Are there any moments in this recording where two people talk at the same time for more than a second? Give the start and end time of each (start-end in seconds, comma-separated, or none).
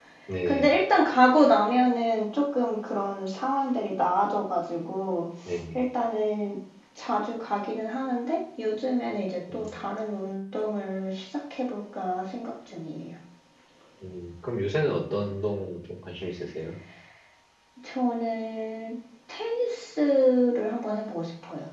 none